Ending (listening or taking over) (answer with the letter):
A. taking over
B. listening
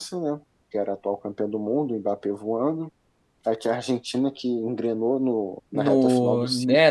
A